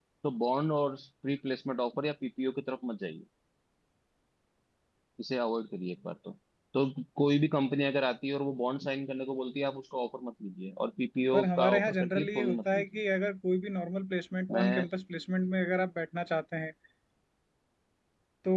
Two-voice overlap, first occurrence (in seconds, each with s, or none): 11.3 s